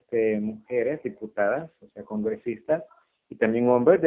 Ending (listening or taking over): listening